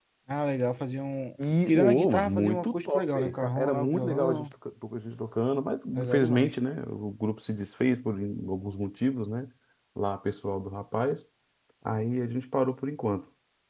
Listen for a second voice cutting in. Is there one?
Yes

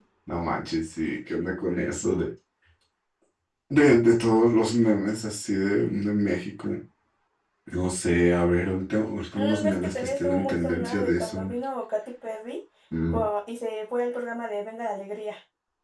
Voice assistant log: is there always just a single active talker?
No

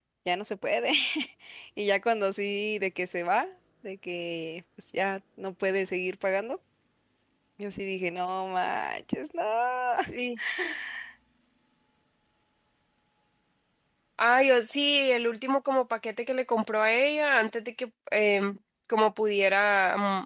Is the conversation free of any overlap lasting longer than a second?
Yes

